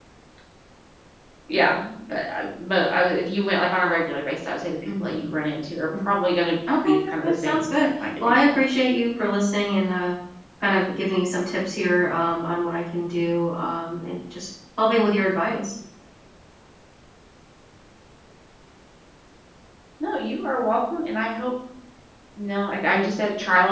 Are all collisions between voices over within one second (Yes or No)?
No